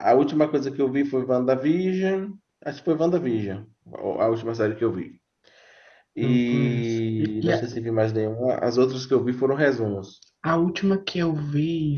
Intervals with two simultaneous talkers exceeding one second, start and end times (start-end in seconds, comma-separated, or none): 6.2-7.6